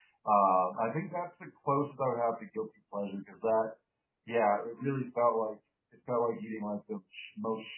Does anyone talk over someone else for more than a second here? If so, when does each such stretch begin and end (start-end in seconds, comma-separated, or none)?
none